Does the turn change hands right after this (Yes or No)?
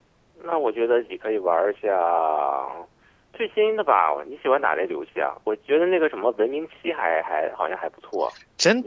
Yes